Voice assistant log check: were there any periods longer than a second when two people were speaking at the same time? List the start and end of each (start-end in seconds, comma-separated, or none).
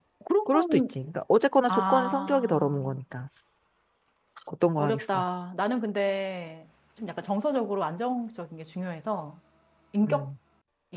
1.7-3.0